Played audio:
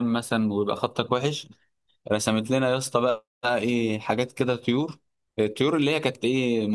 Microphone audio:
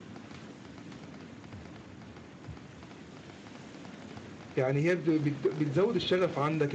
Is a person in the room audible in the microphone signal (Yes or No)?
Yes